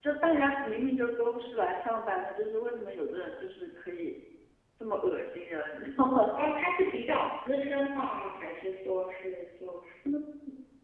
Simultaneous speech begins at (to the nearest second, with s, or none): none